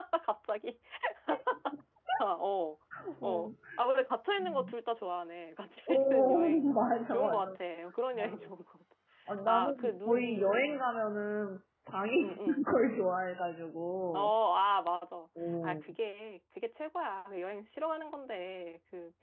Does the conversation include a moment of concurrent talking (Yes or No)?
Yes